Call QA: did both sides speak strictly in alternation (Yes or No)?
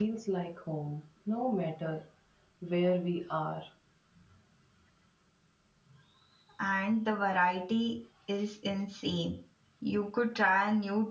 Yes